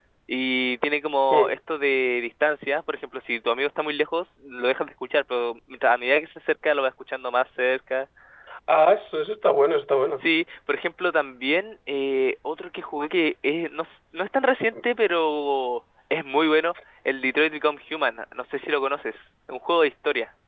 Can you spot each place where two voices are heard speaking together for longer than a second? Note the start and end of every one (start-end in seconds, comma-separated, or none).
none